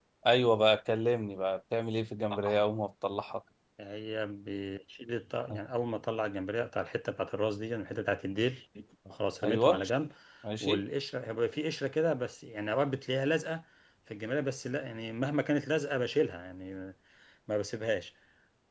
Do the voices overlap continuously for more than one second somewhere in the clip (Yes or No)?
No